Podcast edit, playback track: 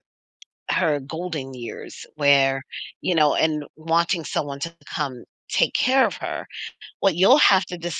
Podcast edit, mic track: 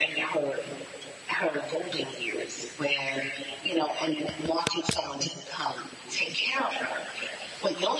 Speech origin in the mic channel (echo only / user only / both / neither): echo only